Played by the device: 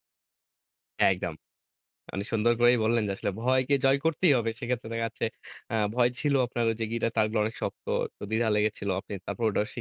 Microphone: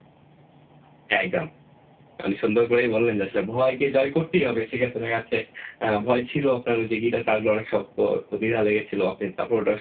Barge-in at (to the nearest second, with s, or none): none